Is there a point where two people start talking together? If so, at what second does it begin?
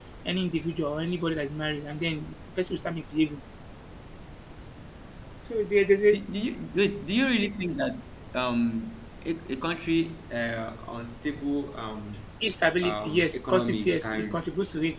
12.8 s

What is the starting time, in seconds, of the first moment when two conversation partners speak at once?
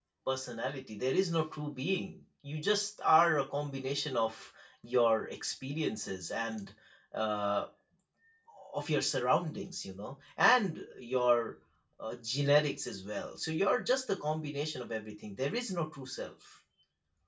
none

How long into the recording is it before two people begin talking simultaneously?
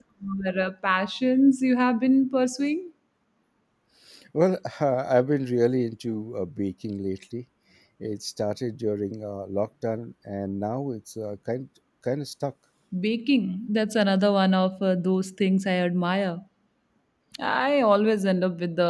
none

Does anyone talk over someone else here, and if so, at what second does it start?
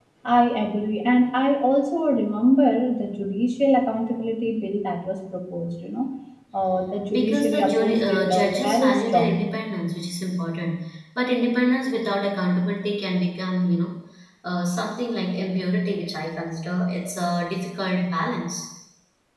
7.1 s

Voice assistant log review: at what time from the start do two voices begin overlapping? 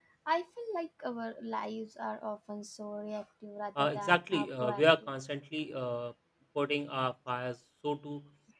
3.8 s

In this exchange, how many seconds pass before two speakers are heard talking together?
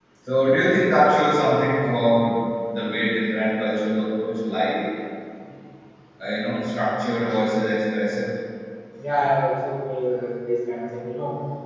none

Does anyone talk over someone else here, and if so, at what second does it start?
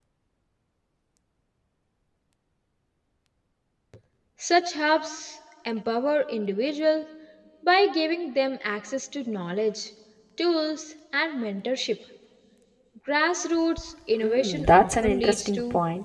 14.2 s

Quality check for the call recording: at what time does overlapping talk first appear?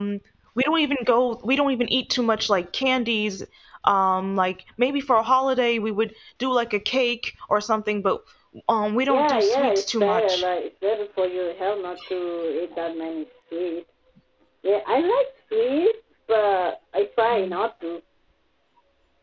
9.1 s

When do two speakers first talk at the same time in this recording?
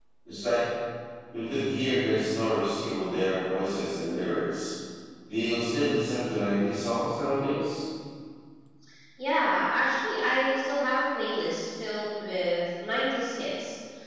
none

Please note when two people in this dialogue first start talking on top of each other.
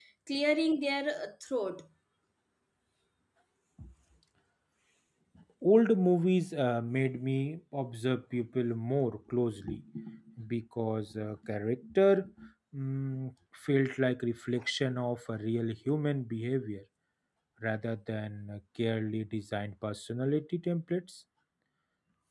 none

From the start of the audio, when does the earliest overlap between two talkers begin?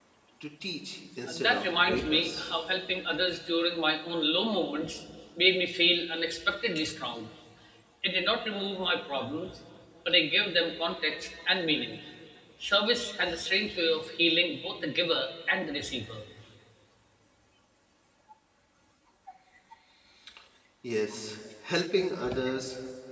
1.3 s

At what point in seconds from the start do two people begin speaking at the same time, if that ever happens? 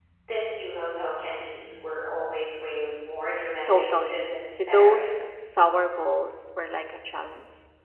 3.6 s

